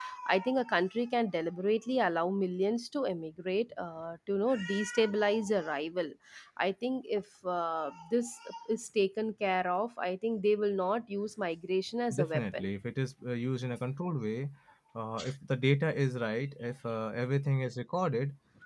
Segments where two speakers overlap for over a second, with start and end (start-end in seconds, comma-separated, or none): none